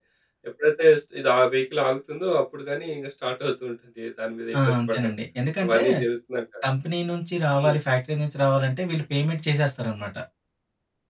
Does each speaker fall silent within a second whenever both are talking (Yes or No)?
Yes